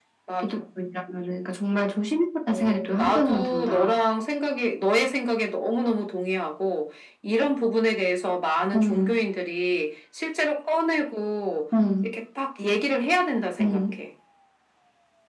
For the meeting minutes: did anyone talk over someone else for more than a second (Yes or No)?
Yes